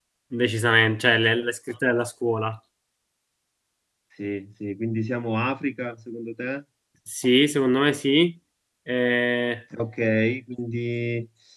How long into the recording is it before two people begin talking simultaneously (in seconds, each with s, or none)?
none